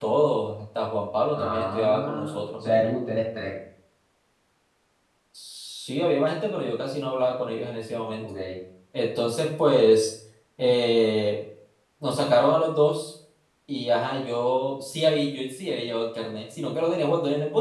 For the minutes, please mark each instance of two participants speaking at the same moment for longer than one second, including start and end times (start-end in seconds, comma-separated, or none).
1.4-2.9